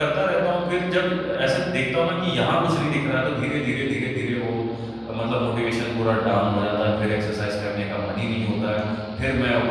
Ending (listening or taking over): listening